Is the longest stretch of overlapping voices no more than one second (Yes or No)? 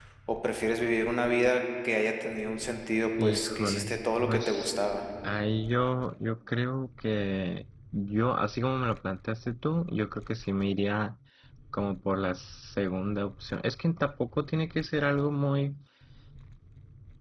No